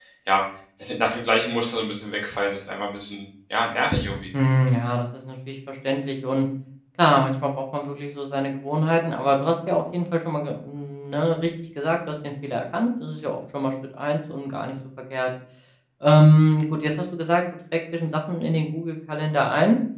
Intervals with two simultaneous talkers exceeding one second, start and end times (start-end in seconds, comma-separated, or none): none